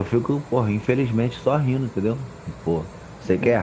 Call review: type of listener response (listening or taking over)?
listening